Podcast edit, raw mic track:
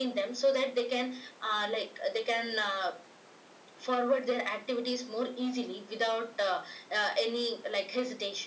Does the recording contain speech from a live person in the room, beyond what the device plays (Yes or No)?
No